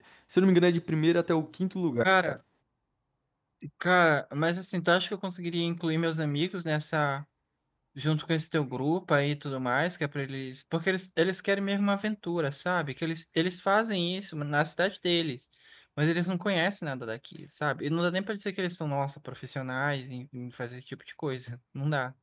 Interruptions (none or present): none